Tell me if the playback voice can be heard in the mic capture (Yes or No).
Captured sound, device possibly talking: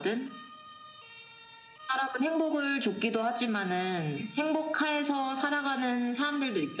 Yes